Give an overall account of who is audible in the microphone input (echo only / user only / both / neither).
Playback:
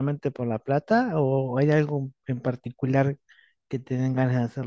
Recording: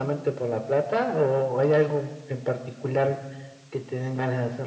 echo only